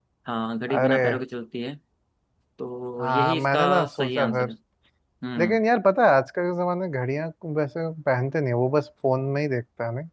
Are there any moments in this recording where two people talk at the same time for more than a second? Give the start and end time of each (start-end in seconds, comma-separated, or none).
3.0-4.5